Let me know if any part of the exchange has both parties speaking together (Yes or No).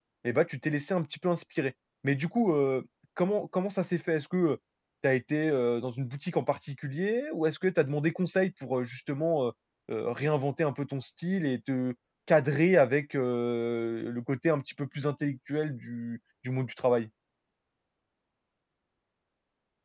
No